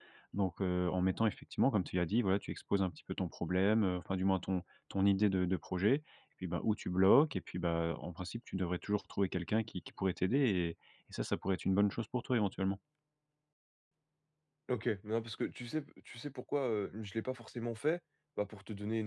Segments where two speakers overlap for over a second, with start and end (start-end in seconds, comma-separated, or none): none